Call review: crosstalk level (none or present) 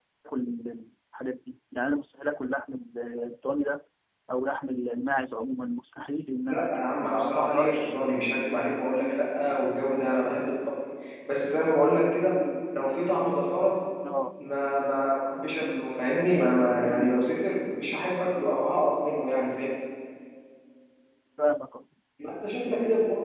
present